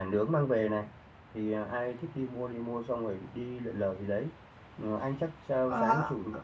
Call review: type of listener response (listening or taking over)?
listening